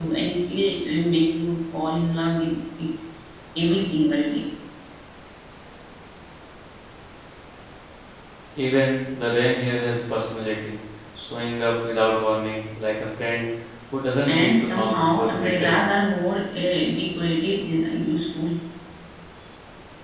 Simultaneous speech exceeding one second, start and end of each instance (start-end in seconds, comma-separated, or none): 14.3-15.9